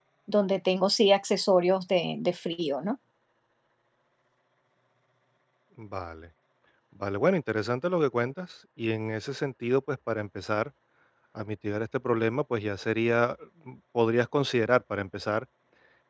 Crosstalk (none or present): none